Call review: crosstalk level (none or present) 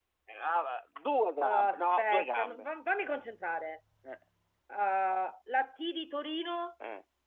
present